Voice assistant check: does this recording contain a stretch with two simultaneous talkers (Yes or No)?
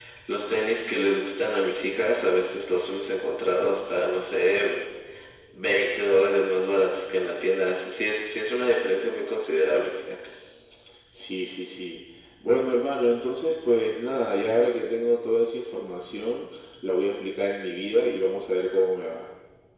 No